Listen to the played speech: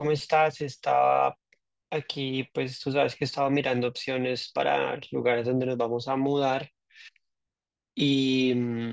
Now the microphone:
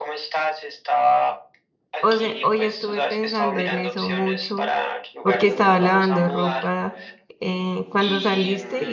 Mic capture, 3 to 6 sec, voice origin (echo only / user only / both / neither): both